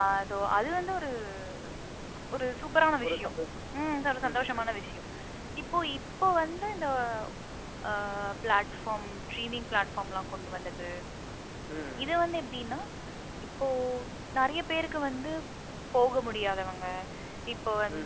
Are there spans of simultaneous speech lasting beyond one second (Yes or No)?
No